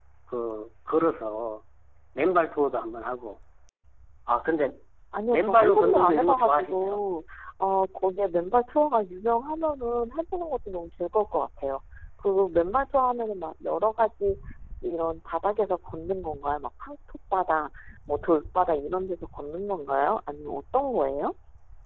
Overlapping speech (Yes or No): Yes